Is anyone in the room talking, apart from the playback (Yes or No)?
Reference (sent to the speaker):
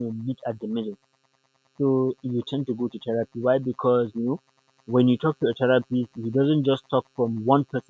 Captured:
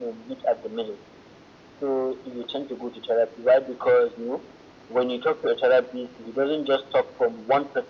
No